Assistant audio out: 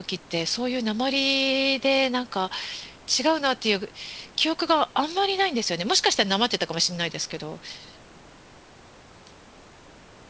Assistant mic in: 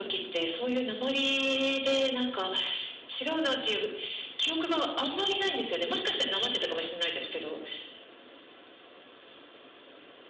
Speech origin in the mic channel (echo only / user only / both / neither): echo only